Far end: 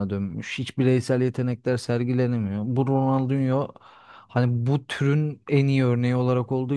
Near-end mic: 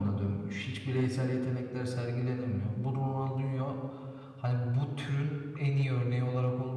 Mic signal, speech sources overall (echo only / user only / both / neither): echo only